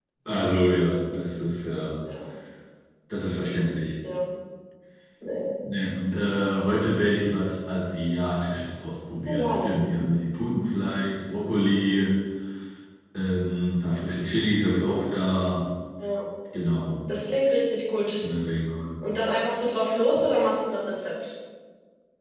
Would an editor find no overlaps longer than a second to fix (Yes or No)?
Yes